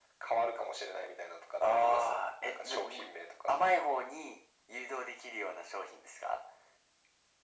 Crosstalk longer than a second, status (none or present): present